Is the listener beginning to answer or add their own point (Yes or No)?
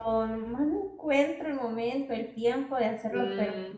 No